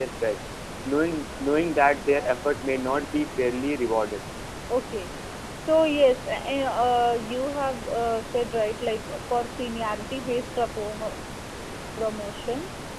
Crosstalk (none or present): none